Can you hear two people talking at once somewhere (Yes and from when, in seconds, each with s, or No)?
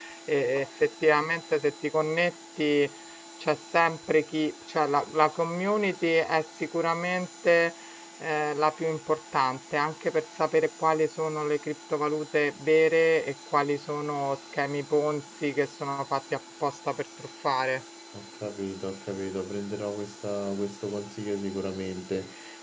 No